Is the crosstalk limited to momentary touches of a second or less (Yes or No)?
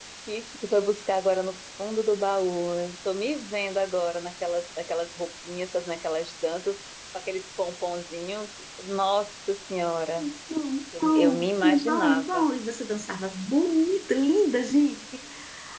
No